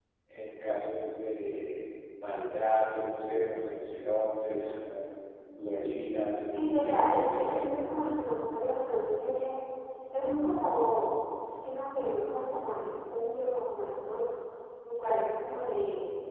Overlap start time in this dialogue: 6.4 s

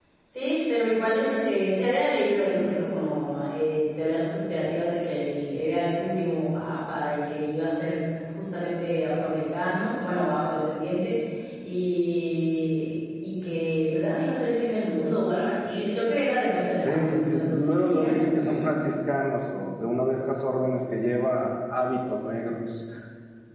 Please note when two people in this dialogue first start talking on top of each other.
16.8 s

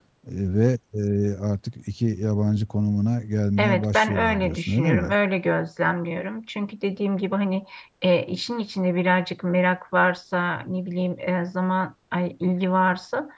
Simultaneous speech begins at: 3.6 s

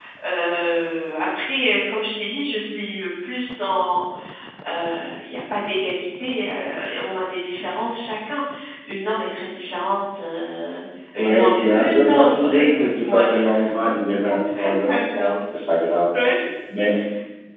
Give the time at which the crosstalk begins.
11.2 s

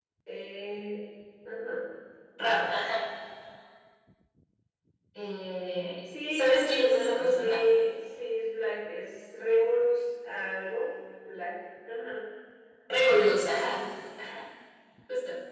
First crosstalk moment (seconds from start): 6.3 s

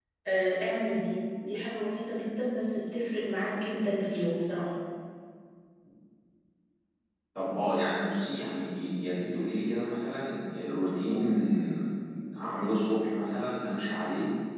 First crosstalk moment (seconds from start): none

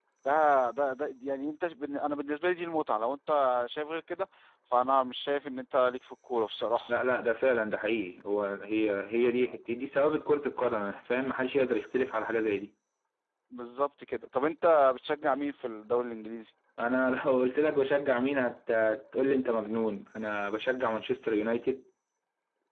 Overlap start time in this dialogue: none

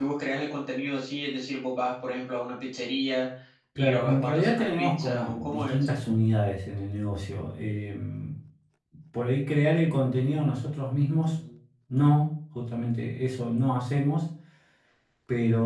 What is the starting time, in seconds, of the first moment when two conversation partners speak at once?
3.8 s

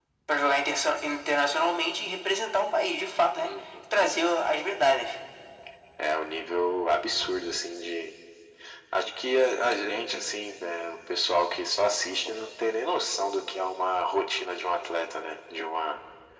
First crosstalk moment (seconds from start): none

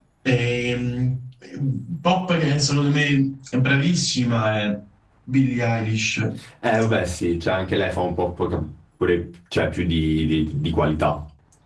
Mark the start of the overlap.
none

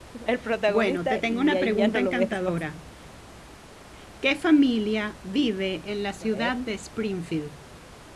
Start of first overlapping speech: 0.7 s

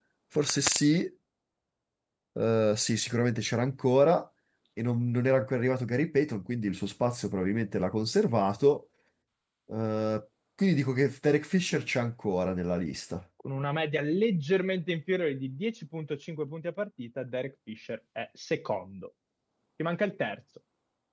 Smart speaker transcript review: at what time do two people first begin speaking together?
none

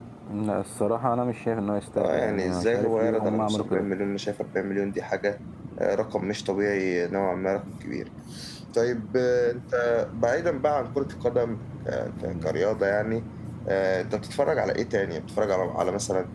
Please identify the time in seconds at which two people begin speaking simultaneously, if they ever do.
2.0 s

